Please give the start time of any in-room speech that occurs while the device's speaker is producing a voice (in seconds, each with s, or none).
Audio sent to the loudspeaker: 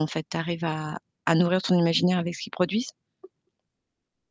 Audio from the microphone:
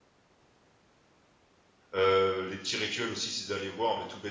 1.9 s